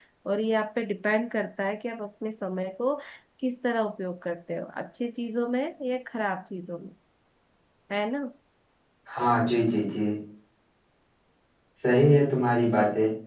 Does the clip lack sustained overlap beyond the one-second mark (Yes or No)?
Yes